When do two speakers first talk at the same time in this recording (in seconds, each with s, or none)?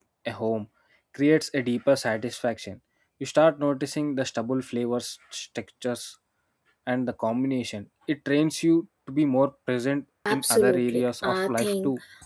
10.2 s